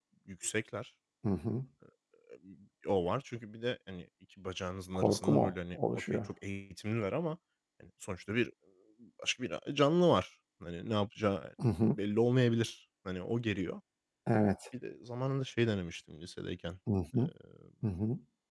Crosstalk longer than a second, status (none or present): present